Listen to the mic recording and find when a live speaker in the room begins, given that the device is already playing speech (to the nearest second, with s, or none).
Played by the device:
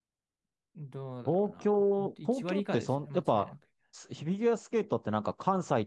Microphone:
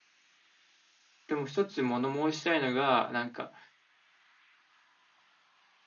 1 s